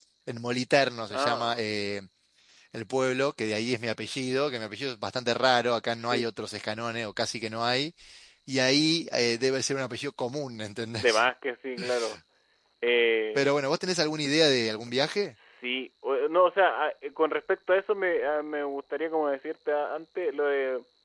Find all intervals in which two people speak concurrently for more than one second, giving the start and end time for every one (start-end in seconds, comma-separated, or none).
none